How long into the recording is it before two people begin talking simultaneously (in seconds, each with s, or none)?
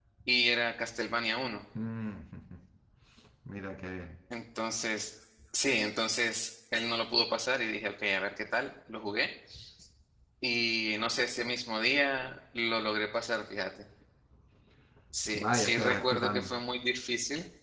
15.3 s